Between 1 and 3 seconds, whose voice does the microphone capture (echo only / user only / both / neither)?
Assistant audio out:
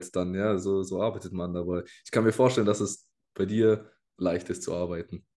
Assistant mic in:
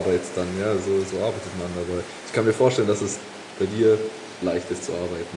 echo only